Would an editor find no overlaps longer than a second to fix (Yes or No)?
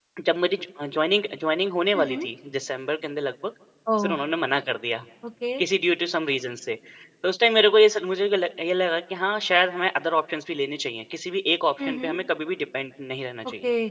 Yes